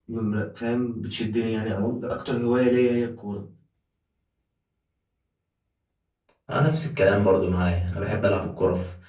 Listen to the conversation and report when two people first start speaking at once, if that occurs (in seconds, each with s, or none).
none